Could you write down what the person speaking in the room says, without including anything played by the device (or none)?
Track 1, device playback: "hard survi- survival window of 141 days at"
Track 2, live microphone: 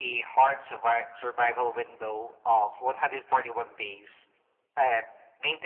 none